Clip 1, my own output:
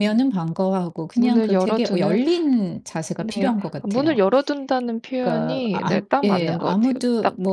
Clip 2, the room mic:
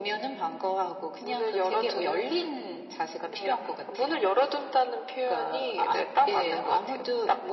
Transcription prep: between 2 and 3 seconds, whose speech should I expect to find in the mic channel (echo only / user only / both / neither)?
echo only